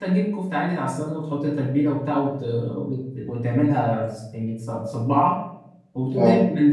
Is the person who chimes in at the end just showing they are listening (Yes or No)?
Yes